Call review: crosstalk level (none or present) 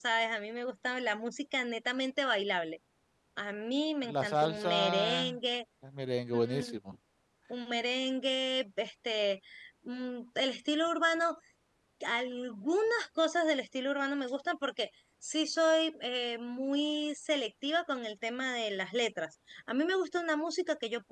present